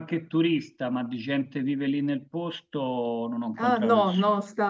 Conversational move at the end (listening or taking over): taking over